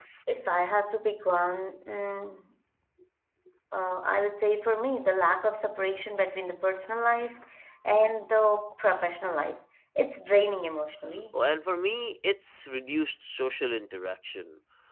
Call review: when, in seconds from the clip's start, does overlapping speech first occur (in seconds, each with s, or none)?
none